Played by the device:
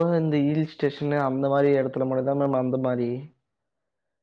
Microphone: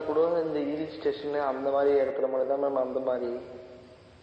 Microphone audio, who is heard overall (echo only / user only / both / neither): echo only